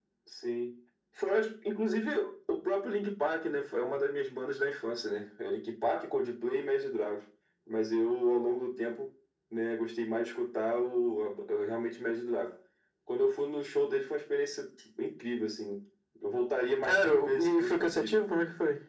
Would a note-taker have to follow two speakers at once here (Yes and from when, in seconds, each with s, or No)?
Yes, from 16.8 s